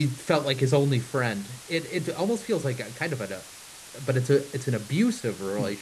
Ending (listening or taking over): taking over